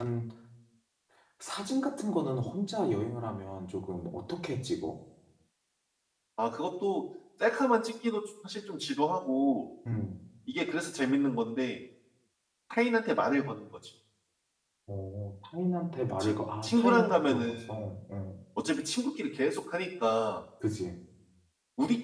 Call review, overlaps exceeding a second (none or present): present